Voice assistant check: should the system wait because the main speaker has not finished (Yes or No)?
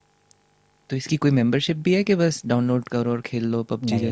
No